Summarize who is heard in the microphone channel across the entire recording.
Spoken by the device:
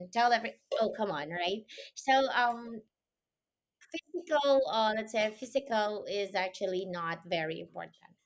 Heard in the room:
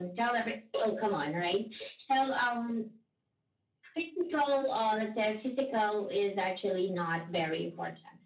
echo only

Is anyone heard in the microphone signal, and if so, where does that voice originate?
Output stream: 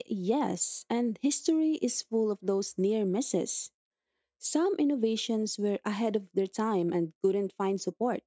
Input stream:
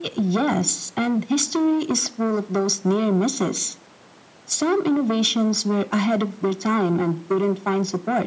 echo only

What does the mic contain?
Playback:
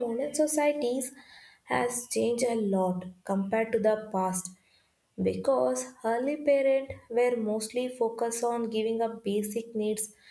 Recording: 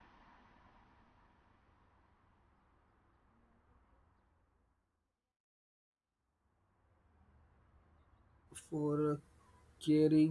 user only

